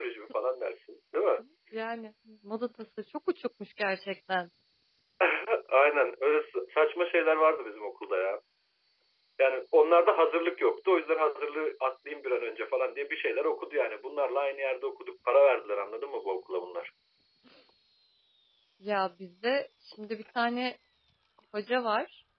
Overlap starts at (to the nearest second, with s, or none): none